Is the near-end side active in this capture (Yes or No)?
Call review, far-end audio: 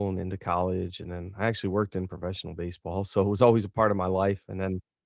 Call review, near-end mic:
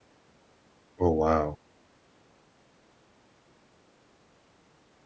Yes